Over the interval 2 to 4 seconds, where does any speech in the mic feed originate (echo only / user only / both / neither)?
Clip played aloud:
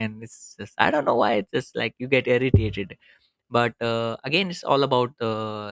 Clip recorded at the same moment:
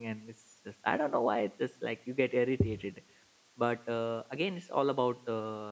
echo only